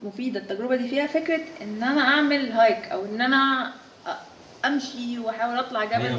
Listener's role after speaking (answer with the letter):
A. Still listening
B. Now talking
B